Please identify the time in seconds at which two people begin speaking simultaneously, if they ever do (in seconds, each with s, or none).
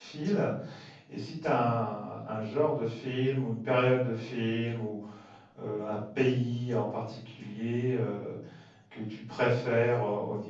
none